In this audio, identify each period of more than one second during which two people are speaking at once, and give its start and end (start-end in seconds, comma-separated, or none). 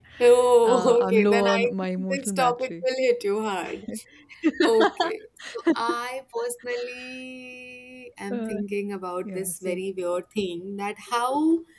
0.6-2.8